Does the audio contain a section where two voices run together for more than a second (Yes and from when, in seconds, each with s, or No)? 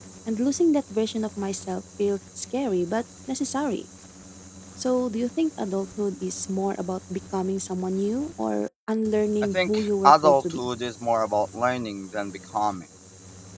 Yes, from 9.4 s